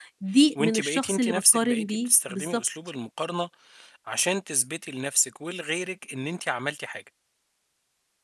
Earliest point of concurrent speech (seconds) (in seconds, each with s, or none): 0.6 s